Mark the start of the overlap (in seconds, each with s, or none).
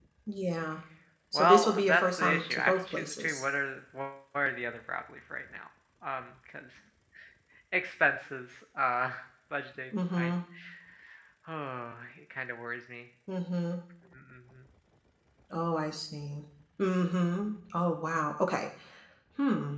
1.3 s